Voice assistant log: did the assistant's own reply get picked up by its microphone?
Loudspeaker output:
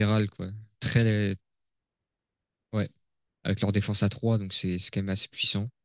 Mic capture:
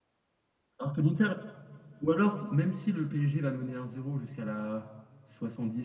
No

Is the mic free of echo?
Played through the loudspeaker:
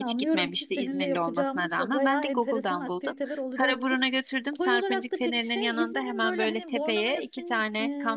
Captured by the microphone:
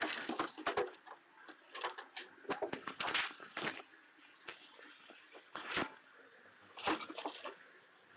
Yes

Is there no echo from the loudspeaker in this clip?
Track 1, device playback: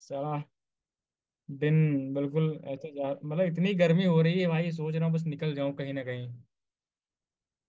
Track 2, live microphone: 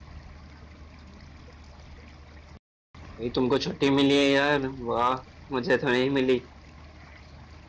Yes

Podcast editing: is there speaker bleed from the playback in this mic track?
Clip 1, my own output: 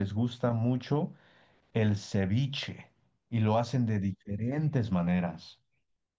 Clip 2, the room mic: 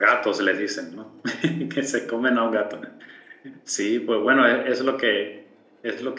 No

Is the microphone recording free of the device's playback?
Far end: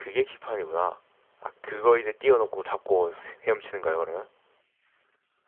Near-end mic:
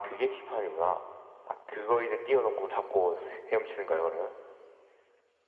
No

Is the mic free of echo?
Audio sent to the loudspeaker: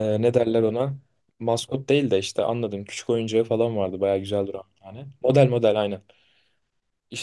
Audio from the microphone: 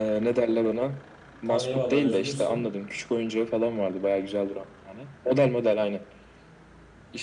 No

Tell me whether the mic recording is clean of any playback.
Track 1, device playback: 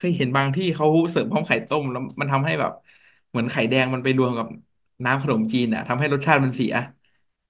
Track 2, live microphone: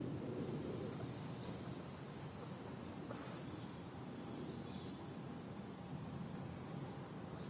Yes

